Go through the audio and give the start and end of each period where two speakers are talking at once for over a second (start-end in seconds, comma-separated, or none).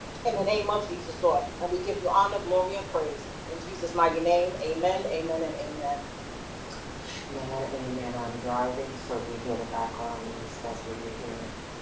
none